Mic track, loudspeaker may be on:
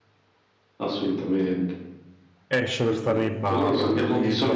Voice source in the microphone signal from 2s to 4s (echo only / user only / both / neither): both